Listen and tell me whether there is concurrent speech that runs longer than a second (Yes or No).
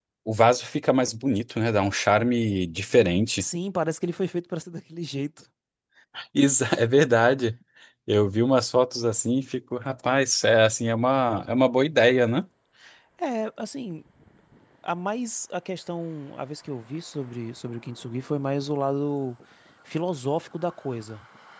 No